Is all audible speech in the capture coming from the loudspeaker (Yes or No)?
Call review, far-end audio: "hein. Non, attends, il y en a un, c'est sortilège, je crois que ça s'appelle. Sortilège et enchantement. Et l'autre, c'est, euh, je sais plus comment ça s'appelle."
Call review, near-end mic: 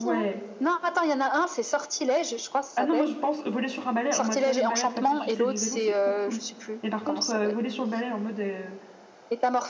No